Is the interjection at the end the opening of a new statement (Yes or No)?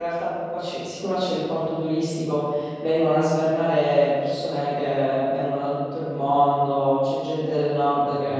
No